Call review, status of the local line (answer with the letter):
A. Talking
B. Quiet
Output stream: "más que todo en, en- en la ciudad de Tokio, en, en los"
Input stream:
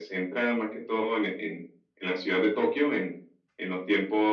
B